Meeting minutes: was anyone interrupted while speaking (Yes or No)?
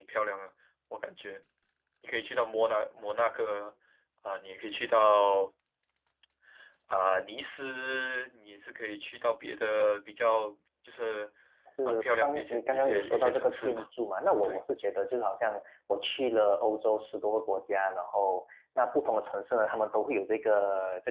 Yes